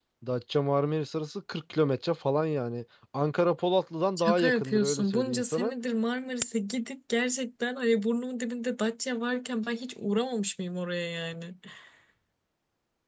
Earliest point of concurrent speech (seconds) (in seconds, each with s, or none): 4.2 s